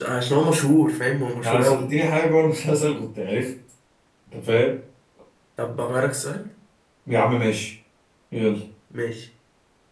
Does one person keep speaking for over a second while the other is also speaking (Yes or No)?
No